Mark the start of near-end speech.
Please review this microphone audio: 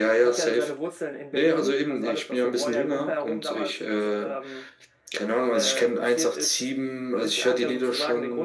none

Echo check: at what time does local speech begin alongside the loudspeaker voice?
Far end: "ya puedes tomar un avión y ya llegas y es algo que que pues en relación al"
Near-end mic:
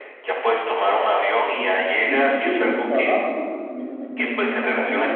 1.5 s

